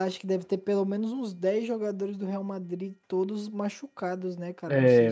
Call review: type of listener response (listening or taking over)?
taking over